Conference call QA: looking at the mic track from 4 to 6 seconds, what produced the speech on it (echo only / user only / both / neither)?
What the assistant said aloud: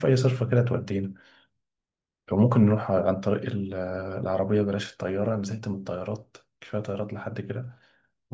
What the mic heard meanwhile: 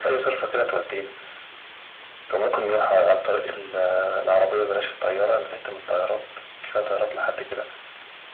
echo only